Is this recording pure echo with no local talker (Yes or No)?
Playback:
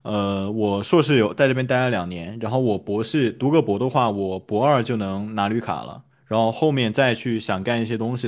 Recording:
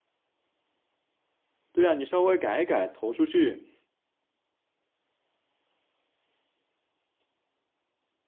No